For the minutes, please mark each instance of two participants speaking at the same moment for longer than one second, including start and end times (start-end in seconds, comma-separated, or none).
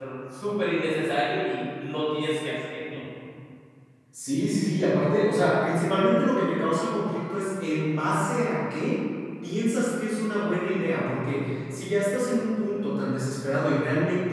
none